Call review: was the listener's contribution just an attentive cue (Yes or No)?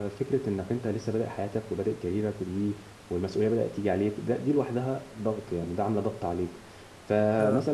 Yes